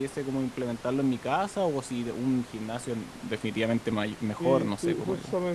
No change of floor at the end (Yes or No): No